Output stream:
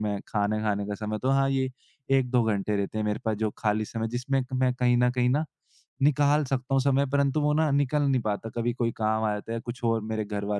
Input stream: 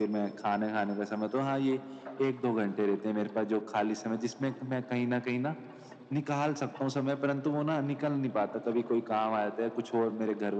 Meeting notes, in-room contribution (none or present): none